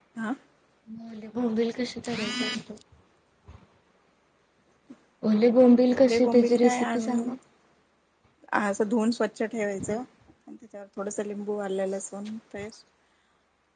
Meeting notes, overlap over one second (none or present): present